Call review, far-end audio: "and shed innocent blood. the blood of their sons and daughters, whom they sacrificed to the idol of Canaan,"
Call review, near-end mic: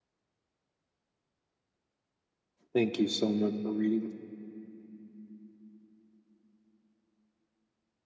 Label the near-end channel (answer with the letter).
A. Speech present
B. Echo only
A